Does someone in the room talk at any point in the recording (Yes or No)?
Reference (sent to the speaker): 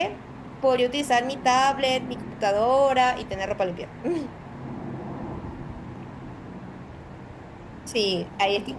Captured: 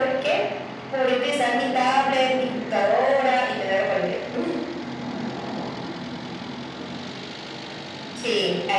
No